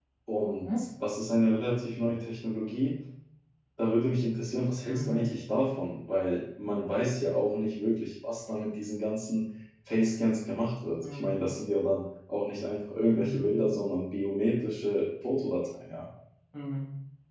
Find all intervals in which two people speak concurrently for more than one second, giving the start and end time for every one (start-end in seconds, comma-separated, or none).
none